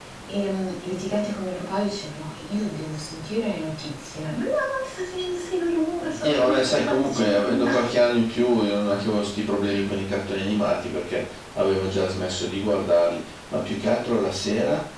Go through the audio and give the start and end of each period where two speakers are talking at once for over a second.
6.2-8.0

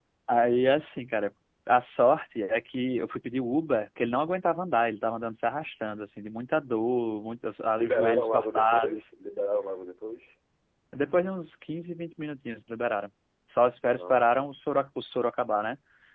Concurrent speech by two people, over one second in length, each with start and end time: 7.7-9.0

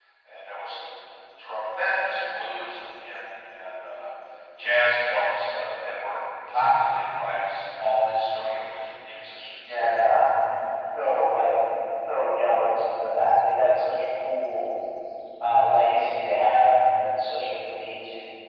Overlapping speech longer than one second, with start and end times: none

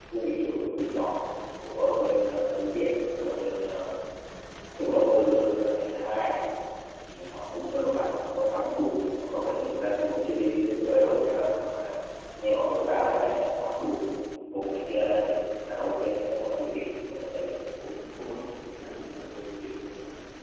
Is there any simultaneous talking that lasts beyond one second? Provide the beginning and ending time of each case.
none

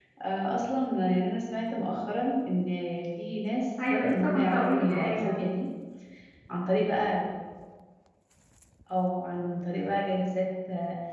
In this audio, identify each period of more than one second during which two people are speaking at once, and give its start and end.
3.9-5.4

